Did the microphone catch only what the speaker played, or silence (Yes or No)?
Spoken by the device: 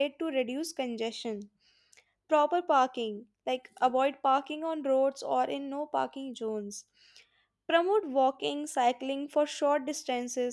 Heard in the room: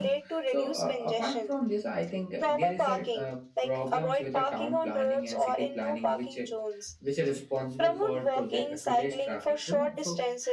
No